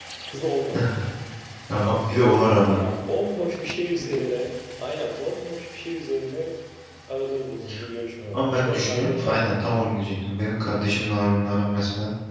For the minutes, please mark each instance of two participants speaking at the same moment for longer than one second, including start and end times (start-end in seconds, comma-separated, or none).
8.3-9.8